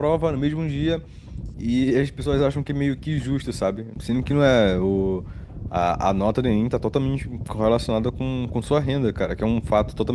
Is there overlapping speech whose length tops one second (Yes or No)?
No